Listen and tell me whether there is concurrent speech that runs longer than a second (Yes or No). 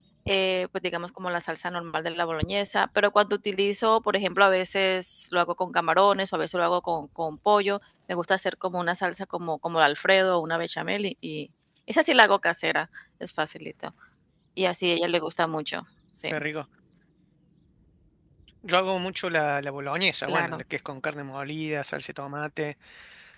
No